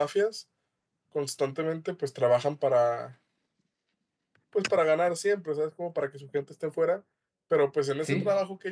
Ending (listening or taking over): listening